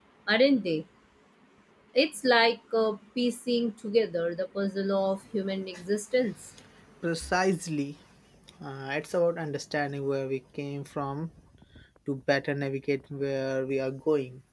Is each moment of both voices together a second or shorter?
Yes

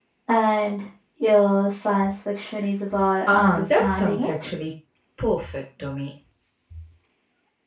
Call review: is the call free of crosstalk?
No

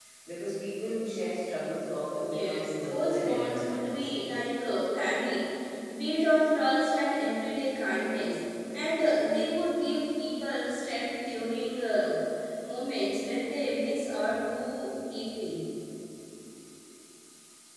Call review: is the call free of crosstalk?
No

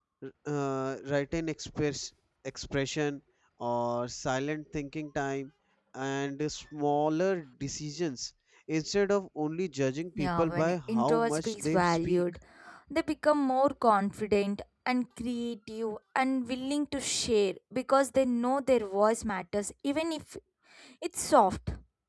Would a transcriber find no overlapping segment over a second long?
No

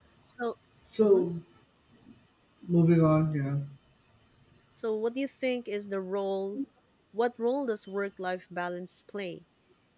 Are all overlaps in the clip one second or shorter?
Yes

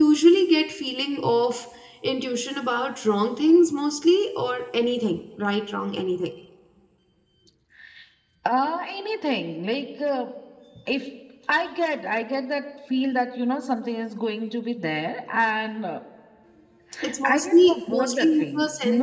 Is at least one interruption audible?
Yes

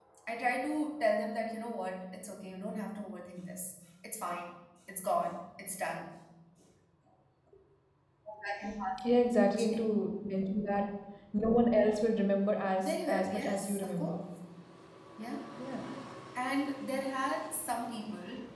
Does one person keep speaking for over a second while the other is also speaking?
Yes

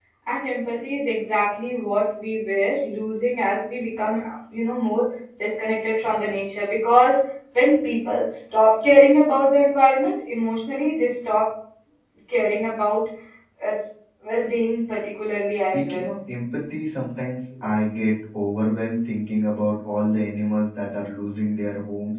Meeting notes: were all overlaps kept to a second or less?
Yes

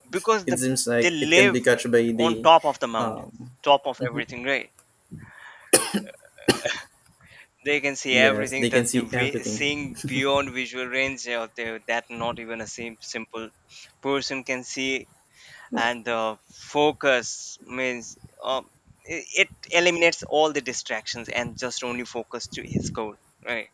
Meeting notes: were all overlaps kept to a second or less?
No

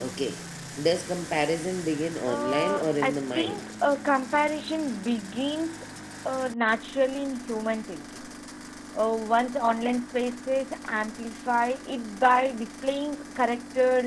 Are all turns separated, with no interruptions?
No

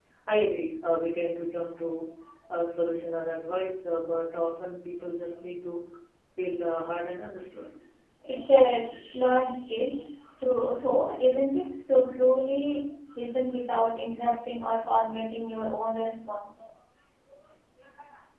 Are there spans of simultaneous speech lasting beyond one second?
No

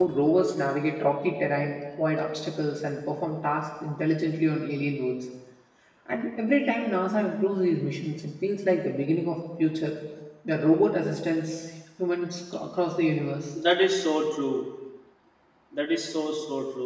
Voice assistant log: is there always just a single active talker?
Yes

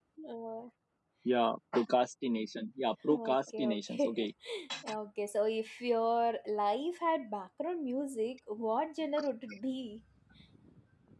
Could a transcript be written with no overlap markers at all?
No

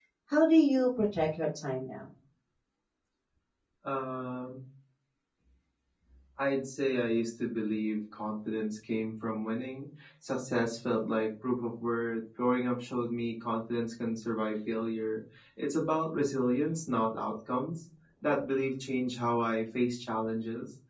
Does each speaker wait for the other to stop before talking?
Yes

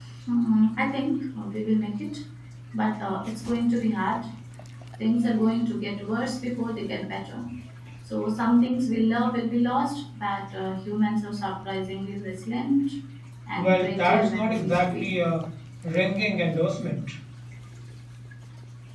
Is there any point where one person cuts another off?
Yes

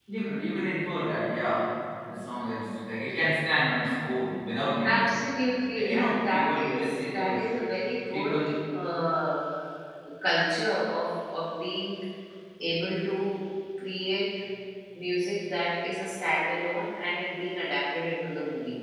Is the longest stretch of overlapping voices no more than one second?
No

